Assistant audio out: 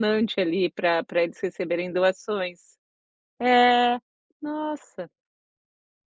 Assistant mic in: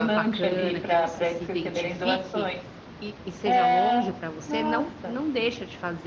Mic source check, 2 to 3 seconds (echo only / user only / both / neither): both